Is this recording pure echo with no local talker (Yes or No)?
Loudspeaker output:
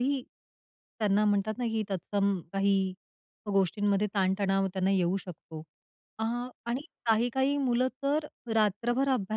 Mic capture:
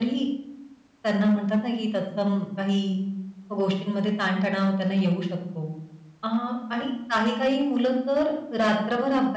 Yes